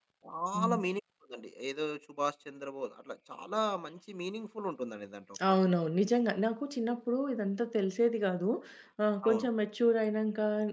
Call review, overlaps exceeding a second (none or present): none